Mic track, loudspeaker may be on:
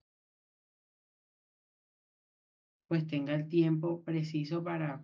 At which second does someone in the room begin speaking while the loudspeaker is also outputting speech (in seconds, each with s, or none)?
2.9 s